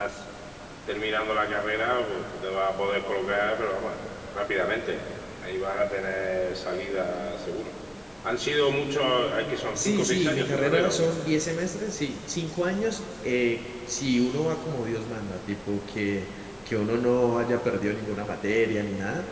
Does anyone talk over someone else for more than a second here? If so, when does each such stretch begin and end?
9.8-11.1

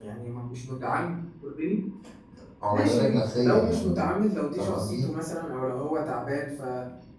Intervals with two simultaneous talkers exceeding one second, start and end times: 2.7-4.1

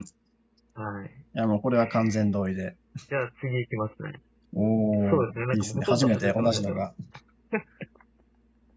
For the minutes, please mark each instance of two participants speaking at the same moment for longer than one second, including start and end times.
5.0-6.9

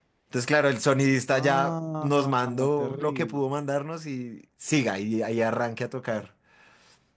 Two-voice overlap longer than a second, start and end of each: 1.3-3.4

